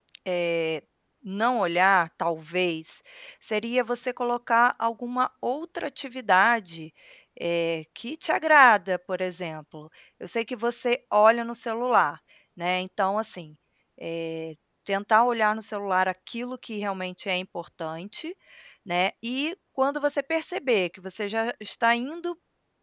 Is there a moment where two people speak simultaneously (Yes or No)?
No